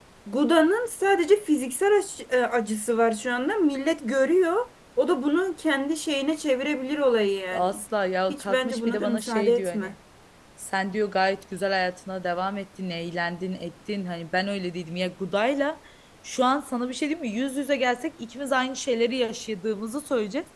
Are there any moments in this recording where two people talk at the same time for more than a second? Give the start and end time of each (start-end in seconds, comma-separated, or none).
8.3-9.9